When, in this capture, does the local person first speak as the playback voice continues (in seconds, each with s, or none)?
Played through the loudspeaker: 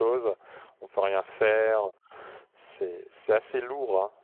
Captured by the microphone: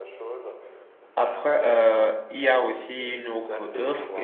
1.2 s